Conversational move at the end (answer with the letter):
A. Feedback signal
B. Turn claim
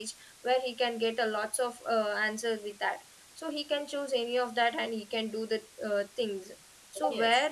A